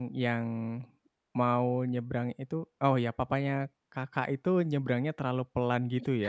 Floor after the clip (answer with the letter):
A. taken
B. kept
A